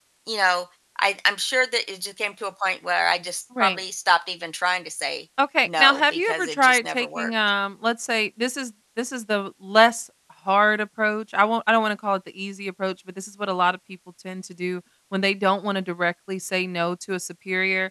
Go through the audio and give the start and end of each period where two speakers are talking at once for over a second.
5.7-7.3

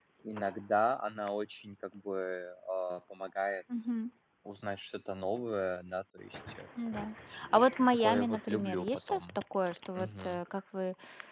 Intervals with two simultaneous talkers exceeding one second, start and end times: 7.9-9.2

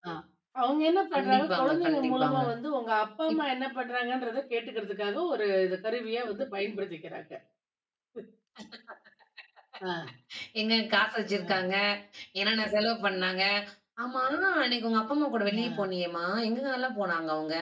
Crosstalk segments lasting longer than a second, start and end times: 1.1-2.4

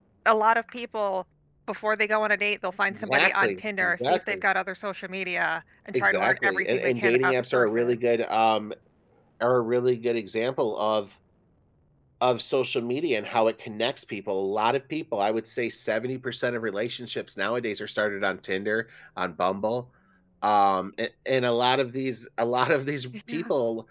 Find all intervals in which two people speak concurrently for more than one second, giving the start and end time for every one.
2.9-4.4, 5.9-8.0

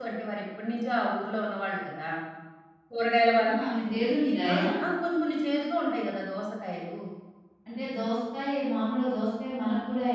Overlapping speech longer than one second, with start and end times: 3.4-4.6

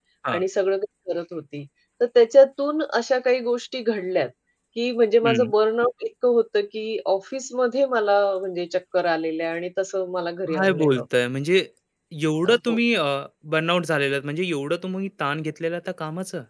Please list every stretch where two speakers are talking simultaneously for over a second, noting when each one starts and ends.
none

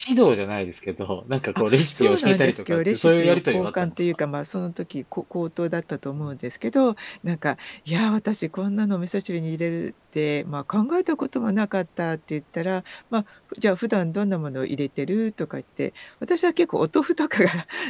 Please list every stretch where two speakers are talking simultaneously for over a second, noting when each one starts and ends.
1.6-4.0

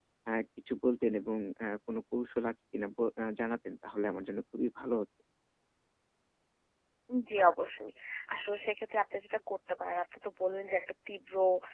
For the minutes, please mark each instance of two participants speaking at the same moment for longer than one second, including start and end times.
none

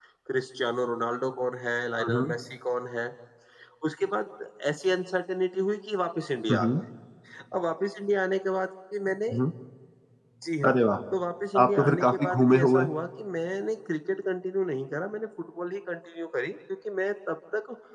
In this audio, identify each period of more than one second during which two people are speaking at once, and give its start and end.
11.6-12.9

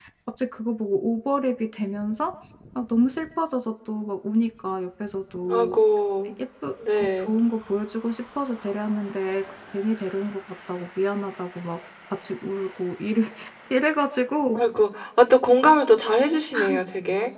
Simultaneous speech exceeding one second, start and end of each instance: none

